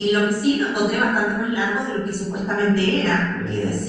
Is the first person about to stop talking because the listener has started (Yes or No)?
No